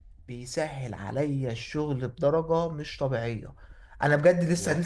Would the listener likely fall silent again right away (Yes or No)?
Yes